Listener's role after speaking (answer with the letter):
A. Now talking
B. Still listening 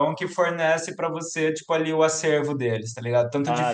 B